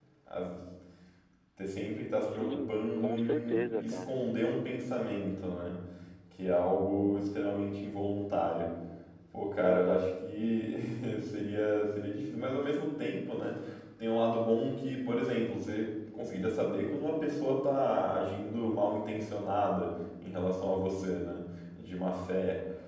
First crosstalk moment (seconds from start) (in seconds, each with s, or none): 2.3 s